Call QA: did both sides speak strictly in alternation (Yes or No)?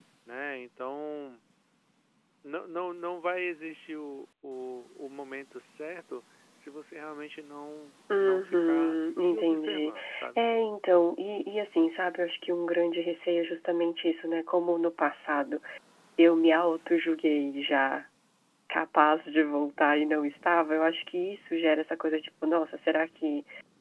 No